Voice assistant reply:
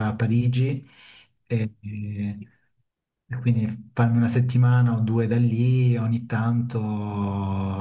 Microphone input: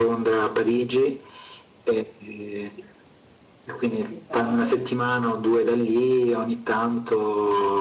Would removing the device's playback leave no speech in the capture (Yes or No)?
No